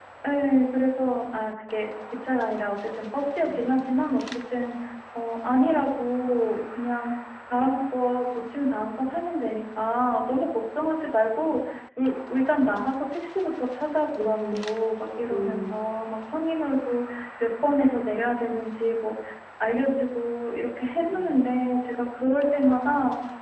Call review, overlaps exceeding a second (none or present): none